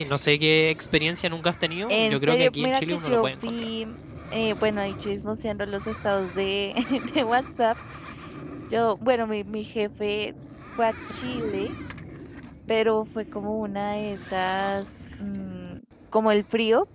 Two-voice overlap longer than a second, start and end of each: 1.9-3.7

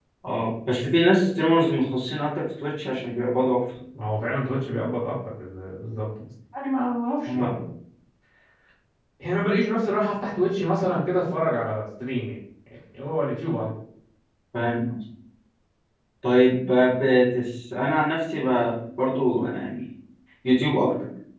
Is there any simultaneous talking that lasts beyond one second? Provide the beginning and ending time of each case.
none

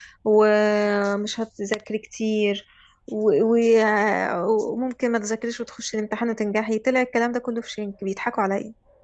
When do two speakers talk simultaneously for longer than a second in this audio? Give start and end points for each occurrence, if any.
none

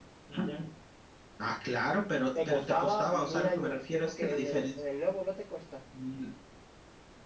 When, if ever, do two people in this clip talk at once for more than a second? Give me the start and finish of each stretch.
2.4-4.8

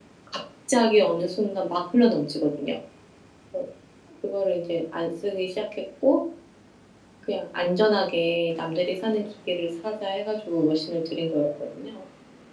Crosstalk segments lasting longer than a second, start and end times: none

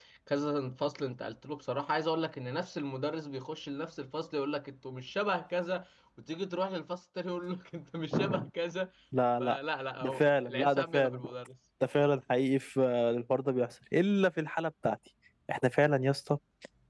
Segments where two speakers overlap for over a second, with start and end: 10.0-11.2

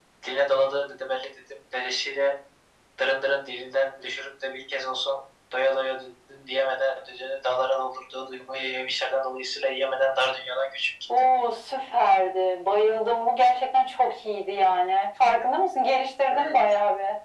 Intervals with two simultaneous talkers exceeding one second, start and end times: none

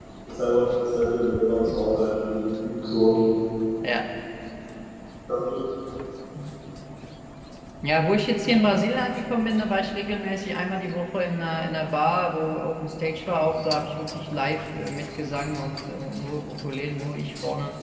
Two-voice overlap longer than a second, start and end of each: none

